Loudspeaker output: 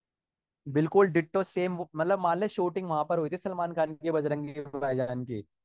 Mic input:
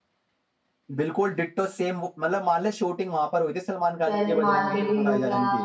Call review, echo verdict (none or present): present